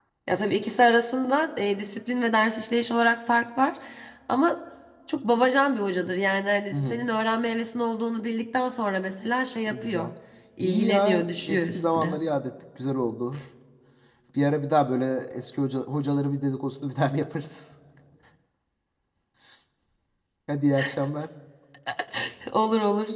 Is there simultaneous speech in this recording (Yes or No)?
Yes